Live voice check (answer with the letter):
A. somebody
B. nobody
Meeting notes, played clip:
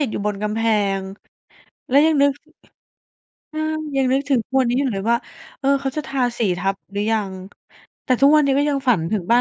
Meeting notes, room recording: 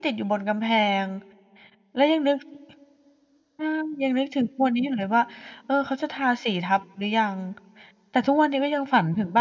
B